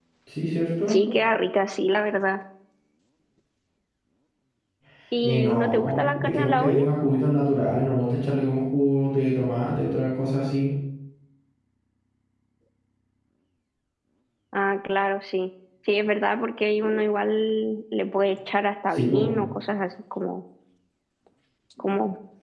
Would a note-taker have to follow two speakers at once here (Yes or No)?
Yes